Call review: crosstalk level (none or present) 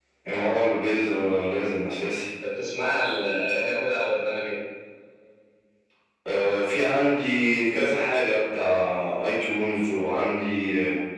none